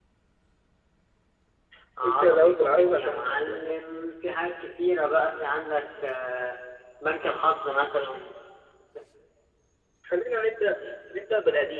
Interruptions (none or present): present